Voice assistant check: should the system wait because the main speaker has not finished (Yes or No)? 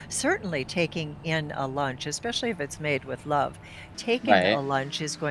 Yes